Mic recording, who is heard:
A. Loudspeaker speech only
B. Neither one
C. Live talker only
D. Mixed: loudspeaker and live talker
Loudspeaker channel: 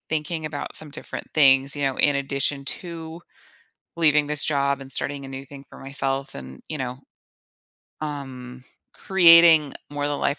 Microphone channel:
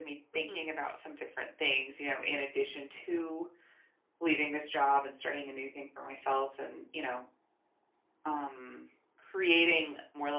D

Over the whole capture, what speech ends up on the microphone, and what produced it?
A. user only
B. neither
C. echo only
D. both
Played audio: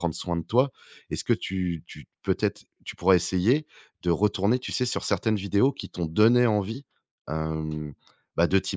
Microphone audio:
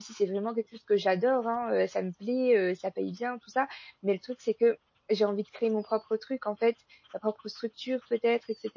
A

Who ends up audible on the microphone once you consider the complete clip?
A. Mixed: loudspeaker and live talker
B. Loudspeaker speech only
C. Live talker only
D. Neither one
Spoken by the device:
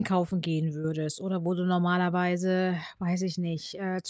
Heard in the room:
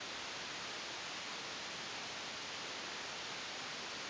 D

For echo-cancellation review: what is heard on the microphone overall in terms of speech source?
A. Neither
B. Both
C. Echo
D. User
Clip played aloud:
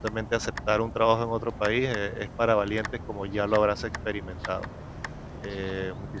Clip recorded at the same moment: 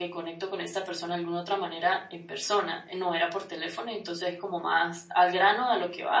D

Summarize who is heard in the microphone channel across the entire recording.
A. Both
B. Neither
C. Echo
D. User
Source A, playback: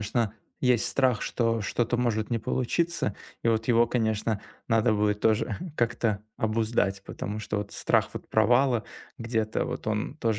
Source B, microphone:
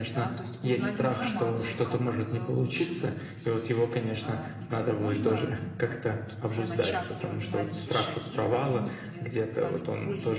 A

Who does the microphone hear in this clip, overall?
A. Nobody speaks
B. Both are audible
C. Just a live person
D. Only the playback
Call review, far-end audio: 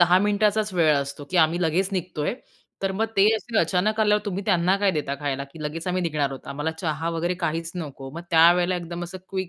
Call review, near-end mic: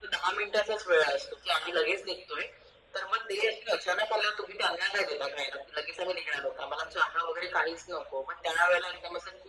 D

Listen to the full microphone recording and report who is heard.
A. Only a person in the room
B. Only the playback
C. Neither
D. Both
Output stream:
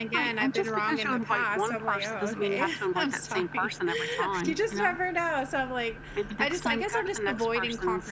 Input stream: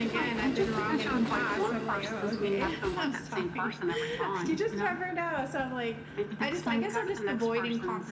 B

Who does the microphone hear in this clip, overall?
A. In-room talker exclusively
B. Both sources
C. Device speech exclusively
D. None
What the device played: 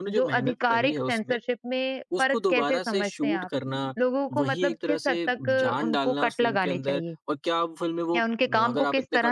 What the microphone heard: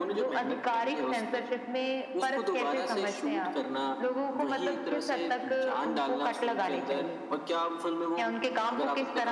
C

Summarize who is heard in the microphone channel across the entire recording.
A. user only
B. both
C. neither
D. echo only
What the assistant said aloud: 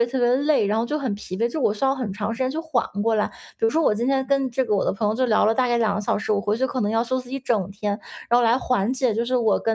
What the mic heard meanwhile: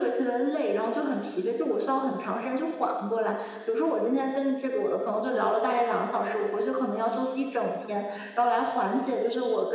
D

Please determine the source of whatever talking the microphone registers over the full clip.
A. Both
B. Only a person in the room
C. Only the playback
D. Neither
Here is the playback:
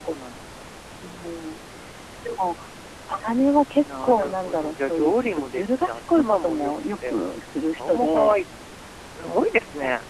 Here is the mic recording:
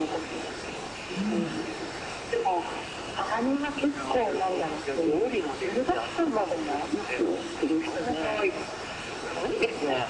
A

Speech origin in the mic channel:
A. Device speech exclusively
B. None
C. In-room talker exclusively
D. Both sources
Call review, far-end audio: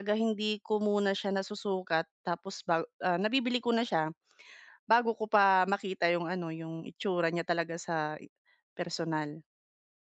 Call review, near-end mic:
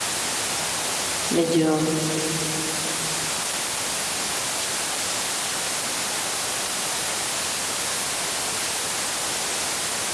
C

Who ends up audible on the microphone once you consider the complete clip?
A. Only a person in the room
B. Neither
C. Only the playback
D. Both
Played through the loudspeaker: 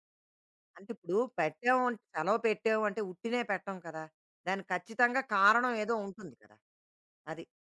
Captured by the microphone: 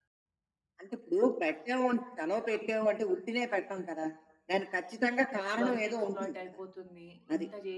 D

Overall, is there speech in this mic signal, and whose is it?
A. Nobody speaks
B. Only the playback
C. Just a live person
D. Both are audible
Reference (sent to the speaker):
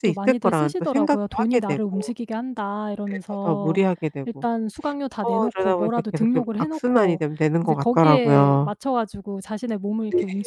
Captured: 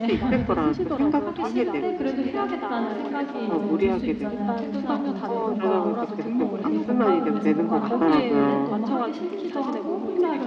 D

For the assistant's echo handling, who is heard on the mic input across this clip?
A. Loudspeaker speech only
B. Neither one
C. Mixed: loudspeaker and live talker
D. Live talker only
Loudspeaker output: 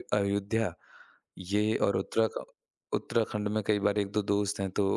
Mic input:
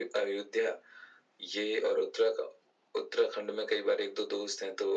A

